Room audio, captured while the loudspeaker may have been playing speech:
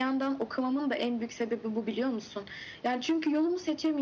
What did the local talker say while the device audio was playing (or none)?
none